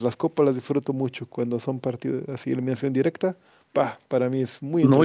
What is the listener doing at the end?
taking over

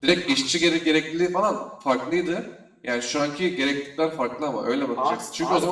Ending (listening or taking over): listening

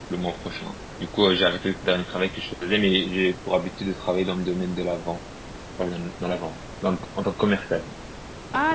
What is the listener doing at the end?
taking over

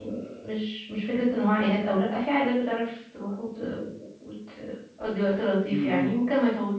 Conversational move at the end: listening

